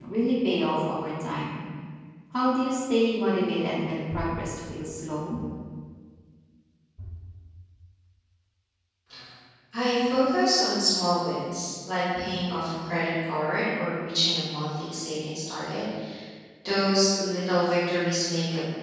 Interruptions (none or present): none